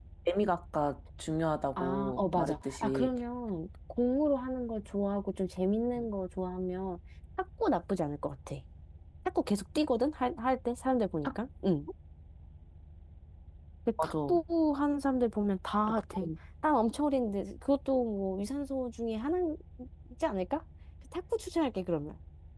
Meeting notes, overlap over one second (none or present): present